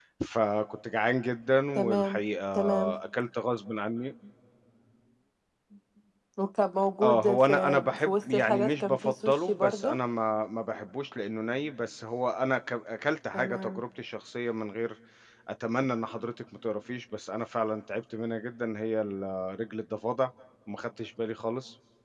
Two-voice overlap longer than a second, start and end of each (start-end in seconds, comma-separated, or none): 7.0-10.0